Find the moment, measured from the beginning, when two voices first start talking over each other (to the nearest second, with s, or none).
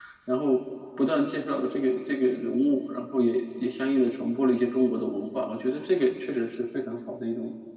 none